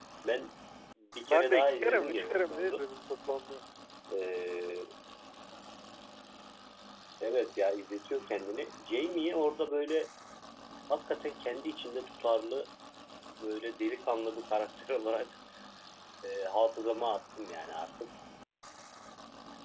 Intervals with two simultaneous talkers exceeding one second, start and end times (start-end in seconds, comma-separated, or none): 1.3-2.8